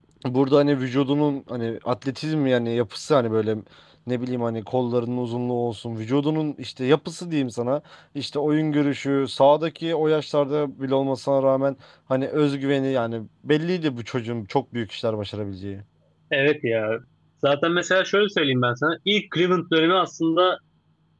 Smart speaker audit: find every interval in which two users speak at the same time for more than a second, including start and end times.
none

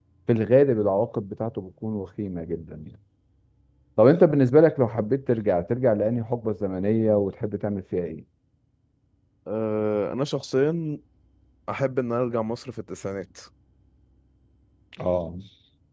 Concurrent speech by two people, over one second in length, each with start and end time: none

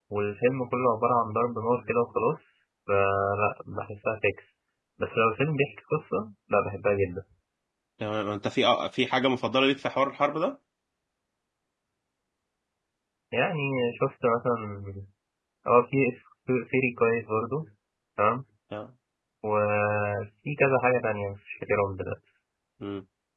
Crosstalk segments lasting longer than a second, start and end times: none

